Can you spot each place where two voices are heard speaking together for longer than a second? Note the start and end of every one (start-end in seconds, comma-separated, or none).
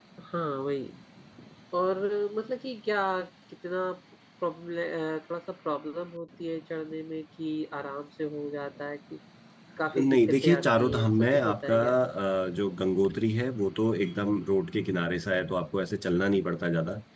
10.0-11.8